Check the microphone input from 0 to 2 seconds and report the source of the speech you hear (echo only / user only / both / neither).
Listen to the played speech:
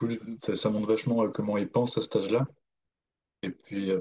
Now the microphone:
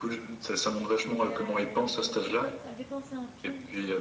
both